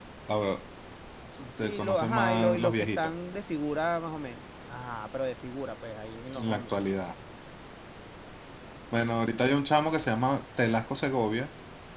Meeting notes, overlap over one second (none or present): present